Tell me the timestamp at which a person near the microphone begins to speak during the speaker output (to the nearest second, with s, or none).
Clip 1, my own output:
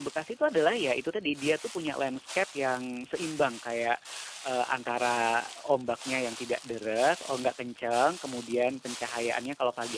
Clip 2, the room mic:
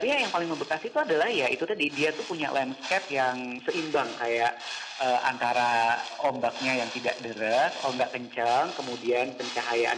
none